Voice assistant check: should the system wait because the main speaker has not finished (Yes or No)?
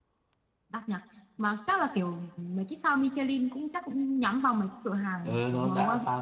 No